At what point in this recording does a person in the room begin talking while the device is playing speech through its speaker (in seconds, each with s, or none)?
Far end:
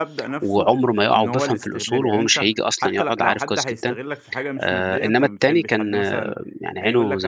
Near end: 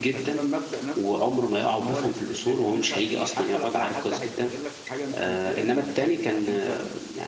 2.9 s